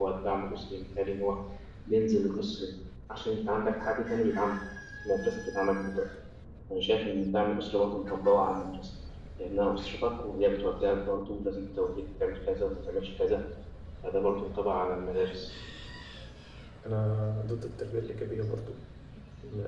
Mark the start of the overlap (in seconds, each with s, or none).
none